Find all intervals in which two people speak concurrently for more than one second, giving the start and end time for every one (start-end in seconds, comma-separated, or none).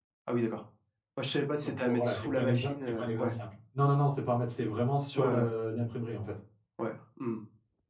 1.6-3.3